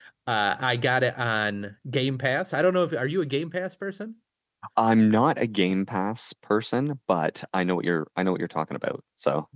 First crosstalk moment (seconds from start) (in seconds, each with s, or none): none